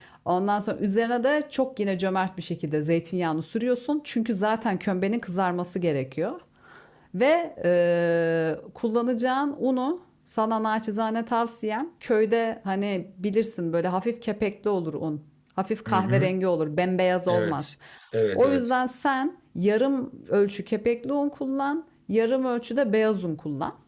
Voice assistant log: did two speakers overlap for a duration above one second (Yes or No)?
No